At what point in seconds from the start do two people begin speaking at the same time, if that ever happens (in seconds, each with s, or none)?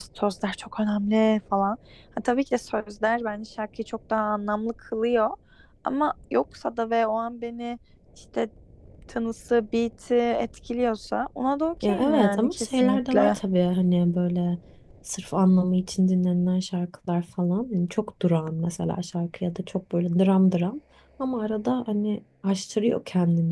11.8 s